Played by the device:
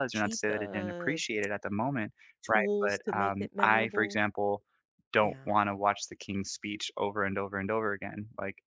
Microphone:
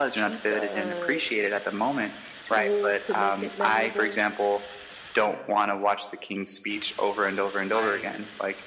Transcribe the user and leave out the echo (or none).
I